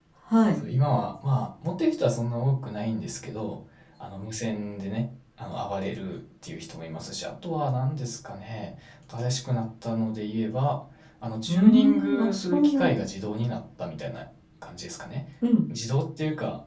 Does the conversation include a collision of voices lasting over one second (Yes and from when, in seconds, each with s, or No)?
Yes, from 11.5 s